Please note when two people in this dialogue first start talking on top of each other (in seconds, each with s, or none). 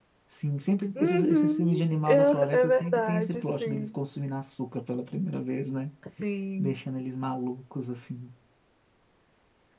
1.0 s